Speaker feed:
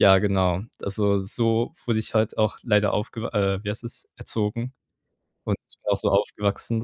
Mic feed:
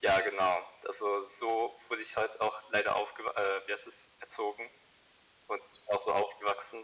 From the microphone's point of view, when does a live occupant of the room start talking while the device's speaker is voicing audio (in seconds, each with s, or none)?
none